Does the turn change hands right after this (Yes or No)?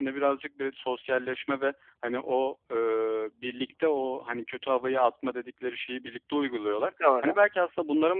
No